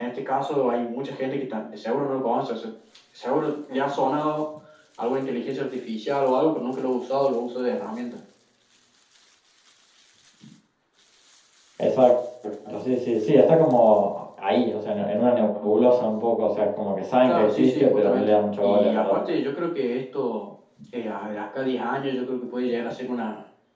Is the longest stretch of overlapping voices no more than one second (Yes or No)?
No